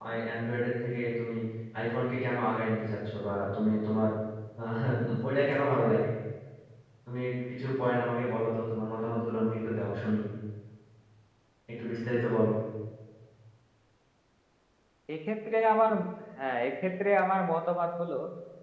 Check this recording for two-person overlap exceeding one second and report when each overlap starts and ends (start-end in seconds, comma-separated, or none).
none